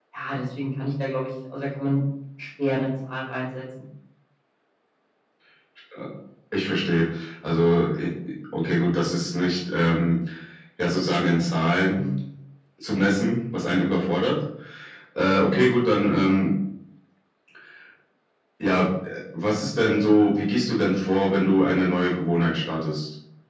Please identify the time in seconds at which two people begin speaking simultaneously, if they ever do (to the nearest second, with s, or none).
none